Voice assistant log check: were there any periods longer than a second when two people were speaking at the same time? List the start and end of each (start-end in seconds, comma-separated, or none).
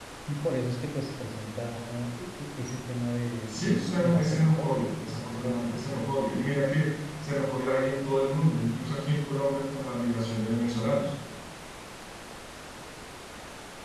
3.5-5.9